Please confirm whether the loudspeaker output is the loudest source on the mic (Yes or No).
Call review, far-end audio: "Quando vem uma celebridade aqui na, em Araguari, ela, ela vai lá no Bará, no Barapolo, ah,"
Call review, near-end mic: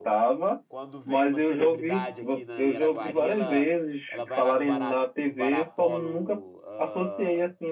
No